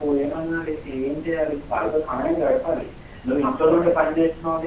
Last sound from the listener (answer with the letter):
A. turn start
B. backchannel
B